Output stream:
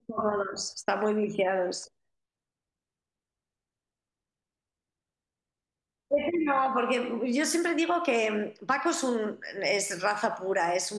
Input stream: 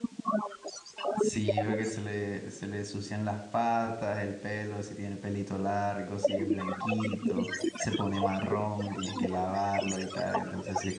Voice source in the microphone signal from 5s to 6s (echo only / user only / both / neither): user only